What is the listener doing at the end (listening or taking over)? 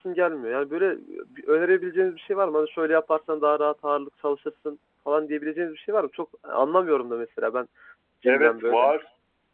taking over